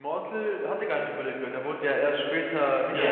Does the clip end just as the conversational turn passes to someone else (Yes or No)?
Yes